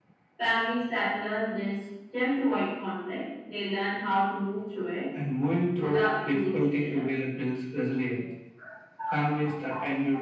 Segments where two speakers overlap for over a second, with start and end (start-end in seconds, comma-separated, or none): 5.8-7.0